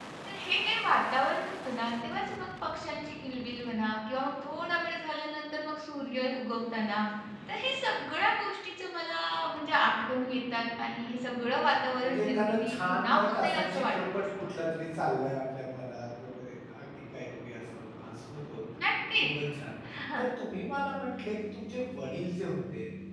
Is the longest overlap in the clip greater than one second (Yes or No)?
Yes